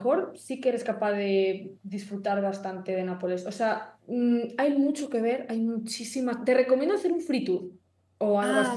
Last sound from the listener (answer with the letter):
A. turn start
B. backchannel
B